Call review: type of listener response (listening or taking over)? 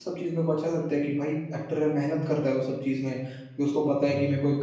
listening